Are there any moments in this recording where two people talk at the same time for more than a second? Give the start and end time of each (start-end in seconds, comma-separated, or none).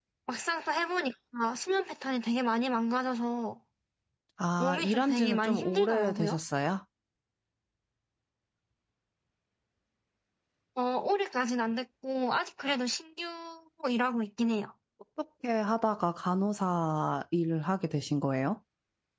4.6-6.4